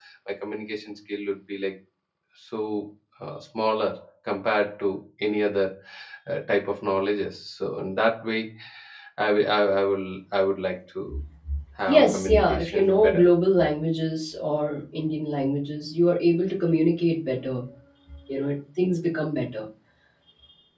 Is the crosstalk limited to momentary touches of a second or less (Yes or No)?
No